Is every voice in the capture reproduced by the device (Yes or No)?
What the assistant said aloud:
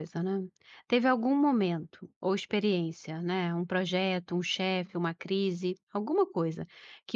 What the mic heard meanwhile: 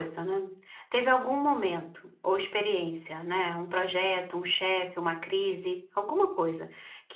Yes